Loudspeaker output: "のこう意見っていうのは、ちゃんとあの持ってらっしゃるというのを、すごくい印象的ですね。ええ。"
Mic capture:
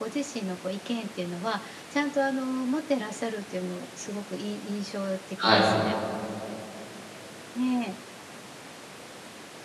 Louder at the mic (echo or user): user